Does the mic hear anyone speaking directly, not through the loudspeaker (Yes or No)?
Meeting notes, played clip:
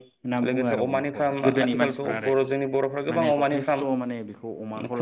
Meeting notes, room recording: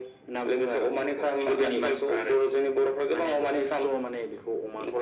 No